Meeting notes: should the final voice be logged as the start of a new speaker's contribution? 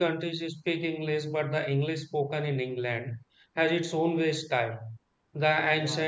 No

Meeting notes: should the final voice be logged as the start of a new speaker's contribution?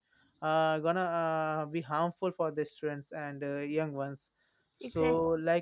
No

